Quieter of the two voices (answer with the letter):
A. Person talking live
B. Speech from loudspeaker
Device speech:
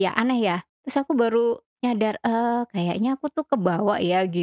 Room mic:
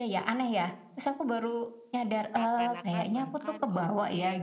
A